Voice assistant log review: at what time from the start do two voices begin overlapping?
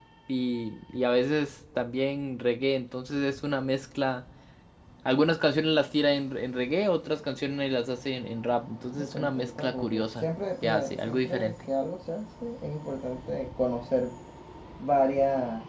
8.9 s

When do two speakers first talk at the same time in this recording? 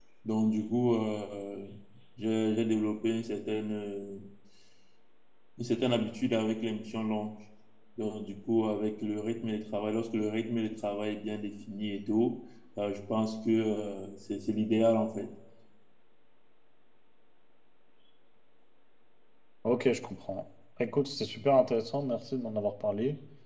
none

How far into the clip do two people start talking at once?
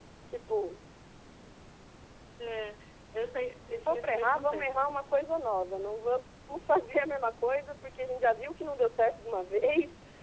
3.7 s

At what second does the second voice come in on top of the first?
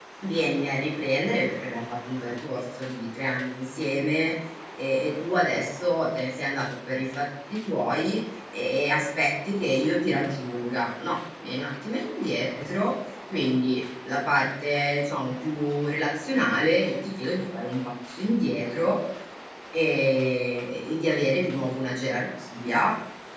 none

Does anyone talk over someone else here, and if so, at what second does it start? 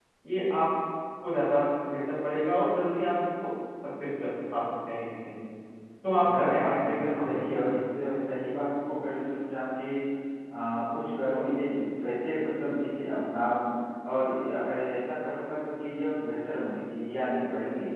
6.3 s

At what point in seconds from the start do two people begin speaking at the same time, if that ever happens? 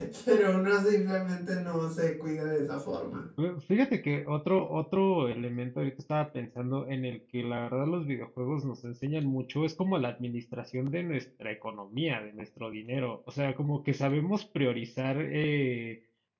none

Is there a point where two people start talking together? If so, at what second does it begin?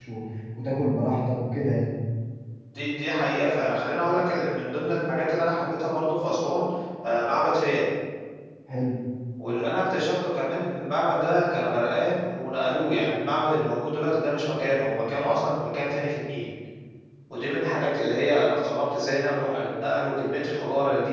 none

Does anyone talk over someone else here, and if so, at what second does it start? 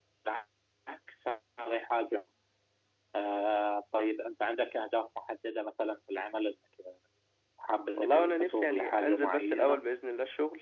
7.9 s

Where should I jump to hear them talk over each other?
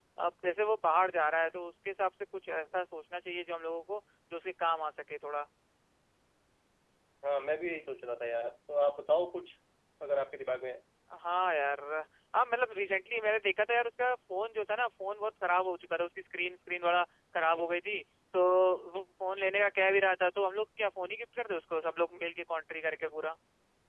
none

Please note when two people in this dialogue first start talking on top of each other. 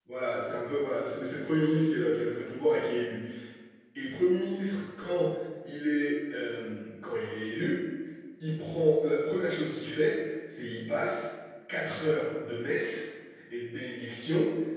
none

